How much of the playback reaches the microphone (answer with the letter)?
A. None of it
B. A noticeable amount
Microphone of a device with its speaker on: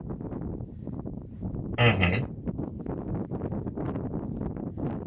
A